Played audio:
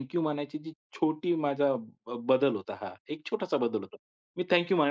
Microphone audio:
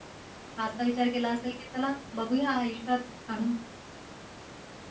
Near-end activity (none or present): present